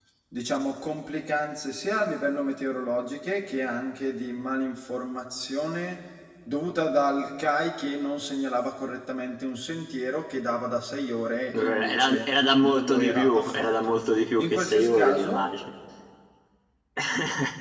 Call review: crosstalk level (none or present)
present